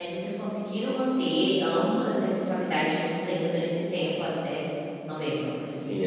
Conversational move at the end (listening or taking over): taking over